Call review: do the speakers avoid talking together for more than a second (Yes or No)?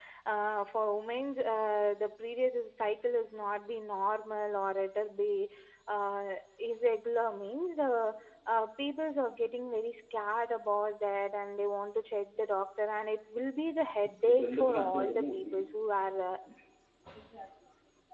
No